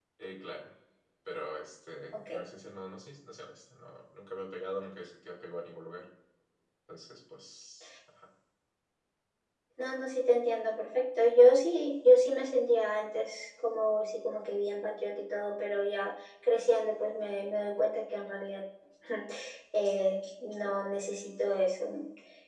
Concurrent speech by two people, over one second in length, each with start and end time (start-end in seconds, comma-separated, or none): none